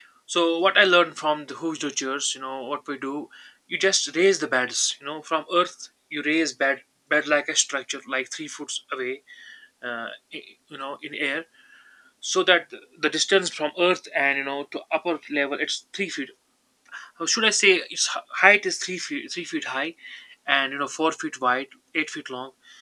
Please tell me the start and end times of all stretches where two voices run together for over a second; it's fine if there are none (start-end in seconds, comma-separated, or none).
none